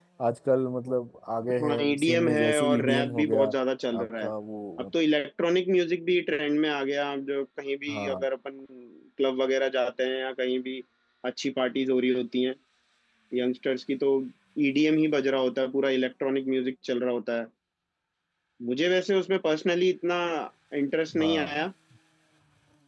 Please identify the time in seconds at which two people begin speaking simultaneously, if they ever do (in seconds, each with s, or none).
1.6 s